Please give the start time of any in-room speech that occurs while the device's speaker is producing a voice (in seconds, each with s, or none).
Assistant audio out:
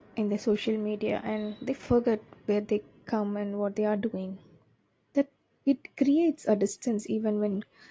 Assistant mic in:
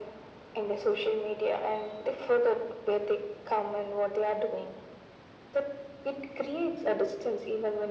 none